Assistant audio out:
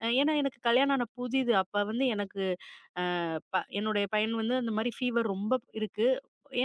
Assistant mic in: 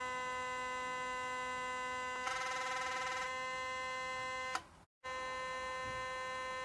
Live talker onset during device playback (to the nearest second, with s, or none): none